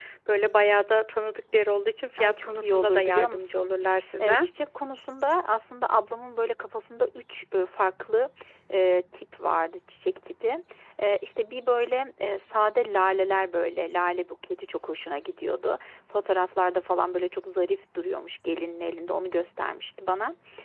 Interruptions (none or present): present